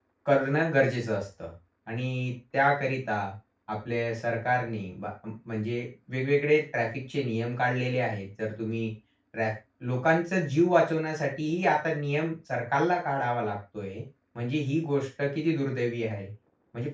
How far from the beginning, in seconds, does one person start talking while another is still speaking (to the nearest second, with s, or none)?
none